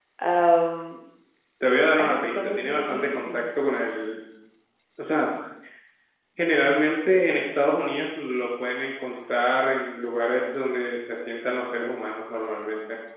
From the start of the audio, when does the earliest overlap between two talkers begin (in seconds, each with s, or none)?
2.0 s